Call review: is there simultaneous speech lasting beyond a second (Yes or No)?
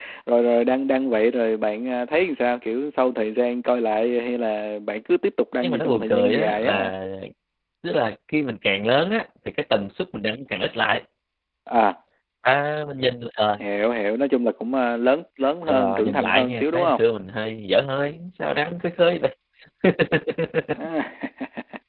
Yes